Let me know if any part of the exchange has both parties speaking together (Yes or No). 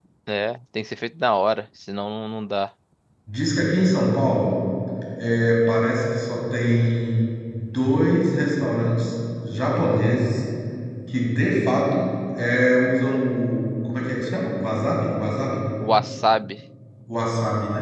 No